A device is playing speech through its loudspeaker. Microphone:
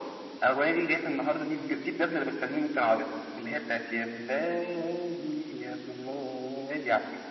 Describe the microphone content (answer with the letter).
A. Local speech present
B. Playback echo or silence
B